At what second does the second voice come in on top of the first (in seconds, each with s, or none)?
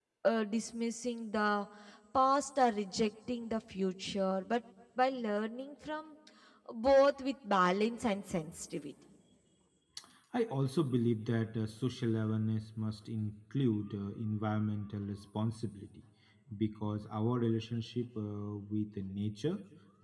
none